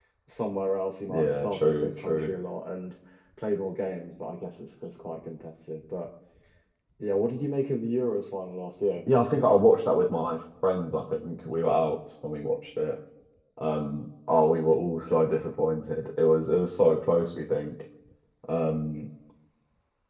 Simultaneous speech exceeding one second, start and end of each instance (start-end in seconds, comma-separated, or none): 1.1-2.3